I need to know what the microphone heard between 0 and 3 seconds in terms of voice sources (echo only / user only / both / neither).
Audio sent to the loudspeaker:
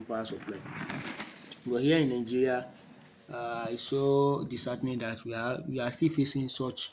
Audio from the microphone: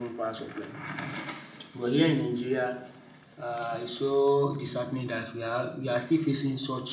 echo only